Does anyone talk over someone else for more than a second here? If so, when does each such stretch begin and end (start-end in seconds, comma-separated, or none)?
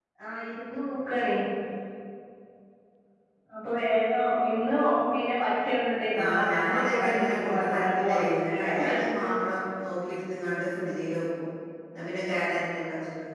6.2-8.9